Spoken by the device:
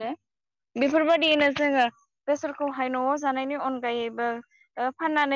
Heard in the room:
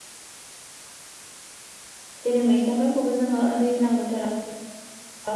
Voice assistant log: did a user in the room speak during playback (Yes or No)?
Yes